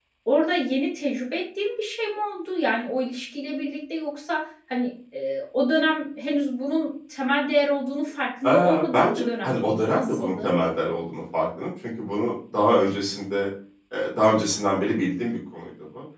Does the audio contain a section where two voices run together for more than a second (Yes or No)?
Yes